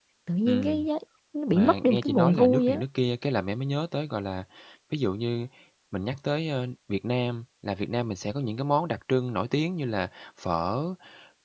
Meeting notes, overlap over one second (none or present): present